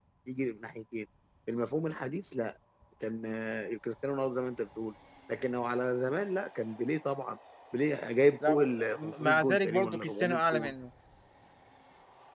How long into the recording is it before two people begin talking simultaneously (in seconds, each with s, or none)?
8.4 s